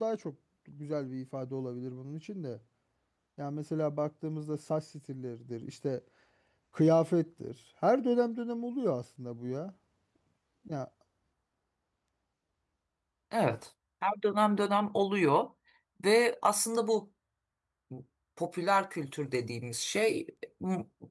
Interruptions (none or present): none